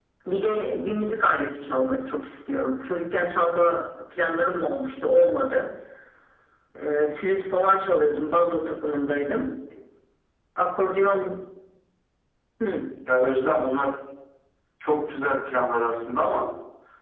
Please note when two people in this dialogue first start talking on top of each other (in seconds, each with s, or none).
none